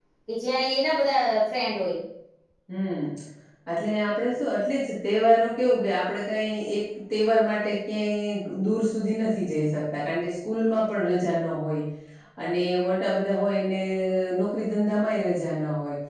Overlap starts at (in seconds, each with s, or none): none